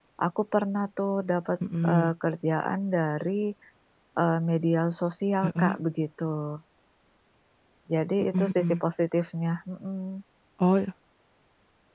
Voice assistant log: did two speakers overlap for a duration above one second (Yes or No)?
No